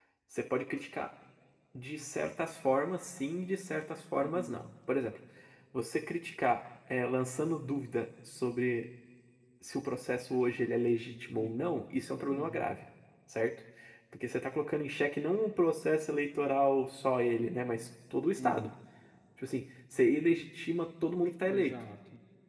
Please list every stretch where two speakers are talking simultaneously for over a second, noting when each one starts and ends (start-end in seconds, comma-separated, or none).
none